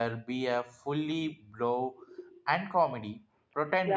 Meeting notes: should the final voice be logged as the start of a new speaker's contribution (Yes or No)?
Yes